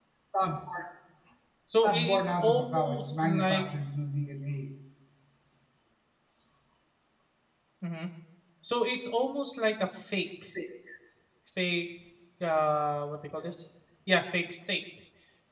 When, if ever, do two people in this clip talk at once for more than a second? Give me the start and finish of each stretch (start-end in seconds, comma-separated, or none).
1.8-3.7